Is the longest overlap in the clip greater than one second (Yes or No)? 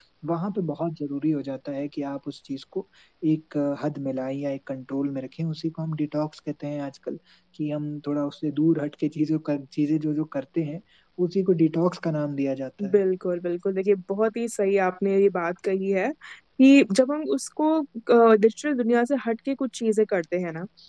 No